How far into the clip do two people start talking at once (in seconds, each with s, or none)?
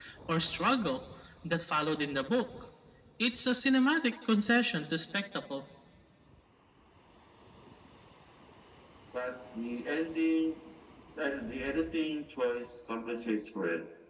none